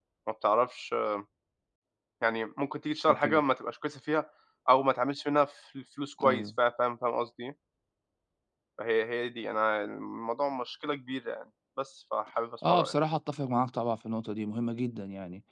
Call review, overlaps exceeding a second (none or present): none